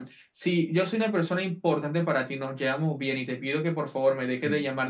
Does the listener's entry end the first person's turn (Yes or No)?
No